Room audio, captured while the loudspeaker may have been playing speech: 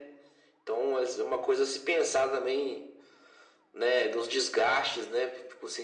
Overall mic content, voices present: echo only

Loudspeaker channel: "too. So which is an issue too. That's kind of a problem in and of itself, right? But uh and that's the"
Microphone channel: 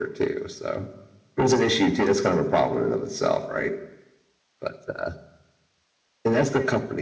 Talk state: echo only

